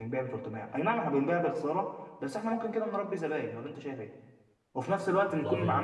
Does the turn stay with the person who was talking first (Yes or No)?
Yes